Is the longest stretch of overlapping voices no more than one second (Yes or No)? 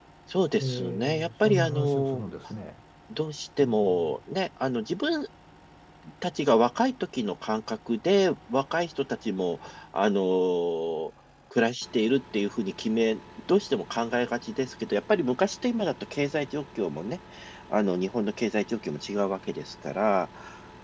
No